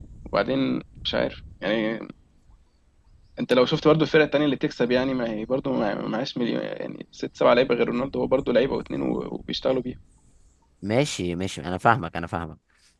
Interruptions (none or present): none